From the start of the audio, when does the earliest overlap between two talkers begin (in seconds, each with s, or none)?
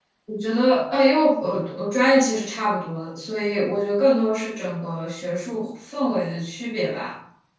none